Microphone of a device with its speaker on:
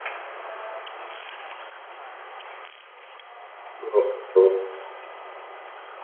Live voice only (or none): ओह! ओह!